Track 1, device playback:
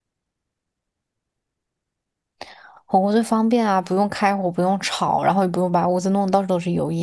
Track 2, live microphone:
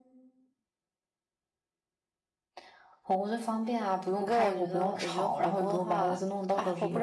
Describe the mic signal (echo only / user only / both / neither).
both